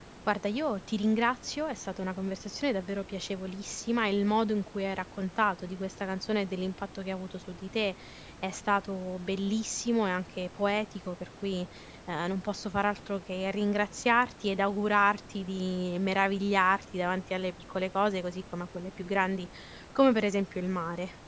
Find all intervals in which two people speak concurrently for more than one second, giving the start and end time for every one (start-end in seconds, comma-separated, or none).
none